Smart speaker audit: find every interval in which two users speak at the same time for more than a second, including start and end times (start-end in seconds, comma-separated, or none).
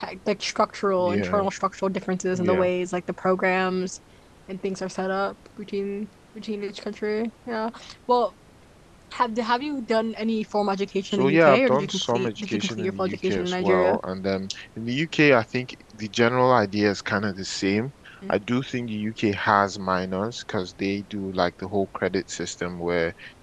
11.1-14.0